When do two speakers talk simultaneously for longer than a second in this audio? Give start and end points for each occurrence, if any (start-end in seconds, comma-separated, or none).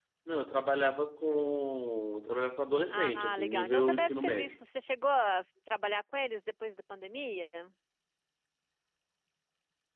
2.9-4.5